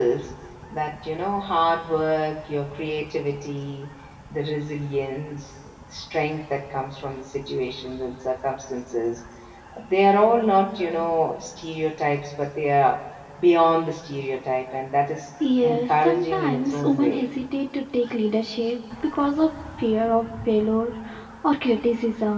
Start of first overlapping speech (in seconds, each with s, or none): 15.4 s